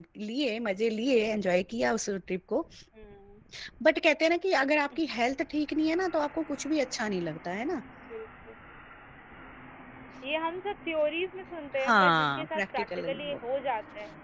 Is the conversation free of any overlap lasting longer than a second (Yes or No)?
No